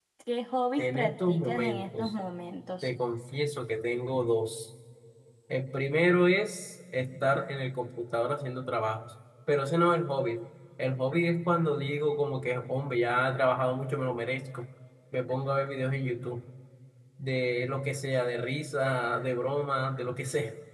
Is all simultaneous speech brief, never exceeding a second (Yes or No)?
No